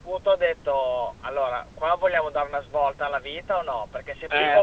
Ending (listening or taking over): listening